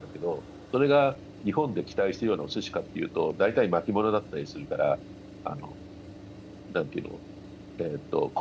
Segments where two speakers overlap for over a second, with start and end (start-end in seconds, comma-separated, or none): none